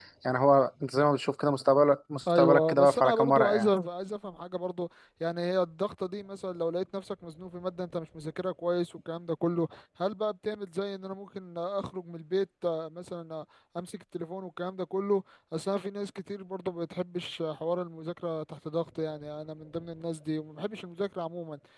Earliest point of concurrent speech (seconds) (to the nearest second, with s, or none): 2 s